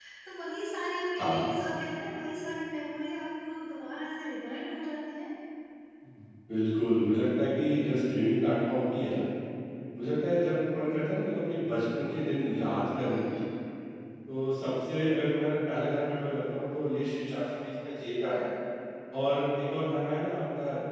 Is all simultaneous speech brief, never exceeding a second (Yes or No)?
Yes